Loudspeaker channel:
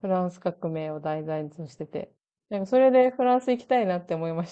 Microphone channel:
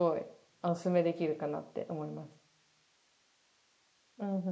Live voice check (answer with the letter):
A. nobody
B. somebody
B